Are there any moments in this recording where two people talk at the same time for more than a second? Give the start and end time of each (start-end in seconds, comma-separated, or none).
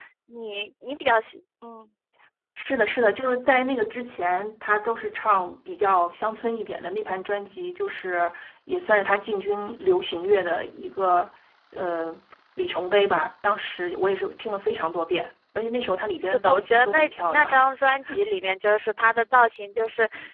16.2-17.6